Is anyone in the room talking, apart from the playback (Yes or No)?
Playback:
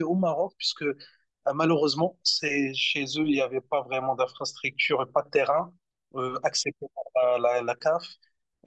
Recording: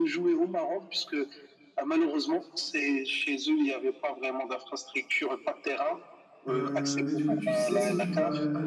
Yes